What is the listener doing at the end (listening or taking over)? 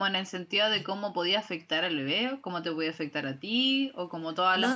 taking over